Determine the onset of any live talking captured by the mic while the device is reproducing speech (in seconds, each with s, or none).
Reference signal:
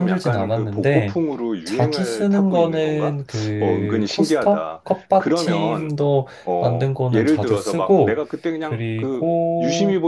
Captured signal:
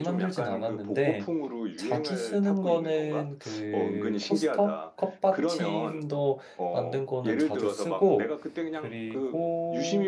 none